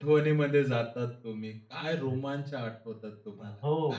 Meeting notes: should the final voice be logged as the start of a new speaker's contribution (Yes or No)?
Yes